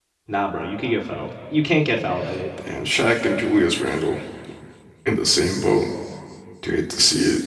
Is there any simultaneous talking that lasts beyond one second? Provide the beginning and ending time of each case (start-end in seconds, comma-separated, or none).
none